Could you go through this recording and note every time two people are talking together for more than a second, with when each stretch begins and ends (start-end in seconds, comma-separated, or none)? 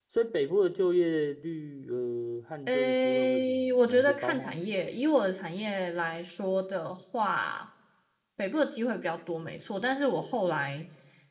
2.7-4.6